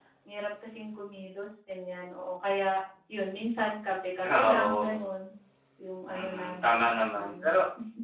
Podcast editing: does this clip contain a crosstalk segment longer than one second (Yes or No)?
Yes